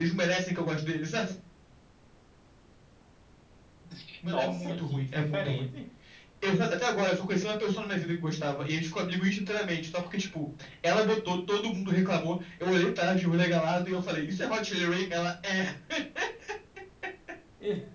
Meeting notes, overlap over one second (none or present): present